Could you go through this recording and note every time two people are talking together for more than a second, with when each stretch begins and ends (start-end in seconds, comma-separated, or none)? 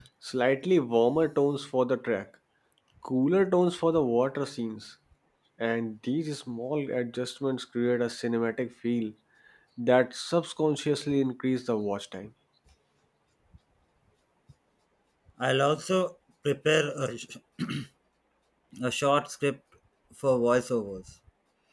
none